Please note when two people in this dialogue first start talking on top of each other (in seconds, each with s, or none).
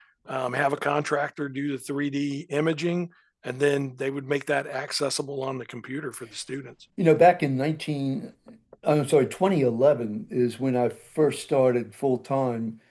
none